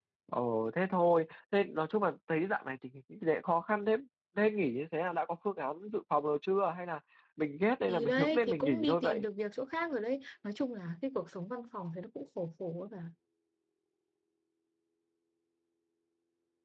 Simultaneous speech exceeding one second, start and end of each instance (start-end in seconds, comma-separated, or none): 7.9-9.2